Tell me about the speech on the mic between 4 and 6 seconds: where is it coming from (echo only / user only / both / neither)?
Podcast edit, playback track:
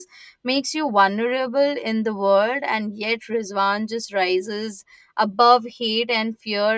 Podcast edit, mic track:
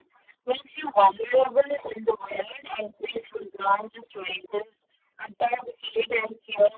echo only